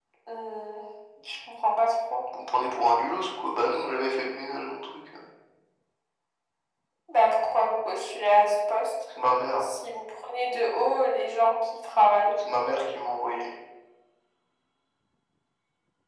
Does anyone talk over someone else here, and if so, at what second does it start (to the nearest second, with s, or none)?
none